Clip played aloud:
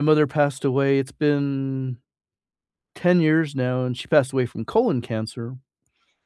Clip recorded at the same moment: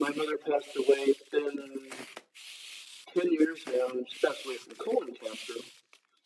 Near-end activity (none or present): none